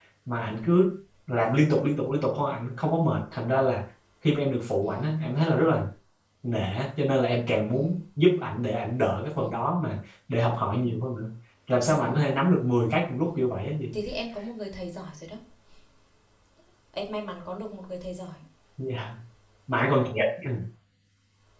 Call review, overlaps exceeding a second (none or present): none